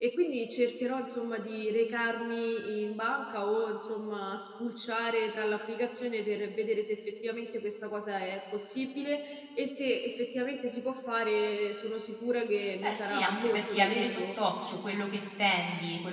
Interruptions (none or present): present